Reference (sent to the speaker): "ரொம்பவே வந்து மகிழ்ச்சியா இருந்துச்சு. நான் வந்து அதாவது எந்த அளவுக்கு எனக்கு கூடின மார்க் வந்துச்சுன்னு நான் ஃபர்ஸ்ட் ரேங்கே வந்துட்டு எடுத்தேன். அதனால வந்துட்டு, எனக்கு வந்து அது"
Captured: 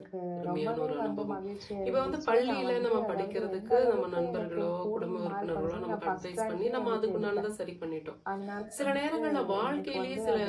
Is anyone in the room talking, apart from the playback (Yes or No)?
Yes